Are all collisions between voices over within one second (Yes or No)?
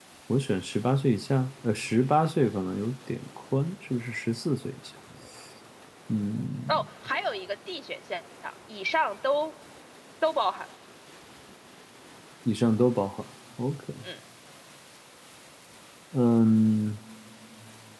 Yes